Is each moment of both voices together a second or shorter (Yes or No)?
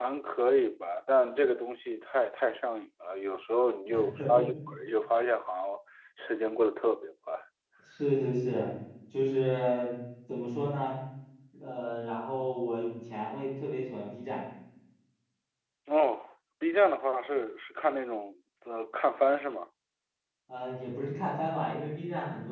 Yes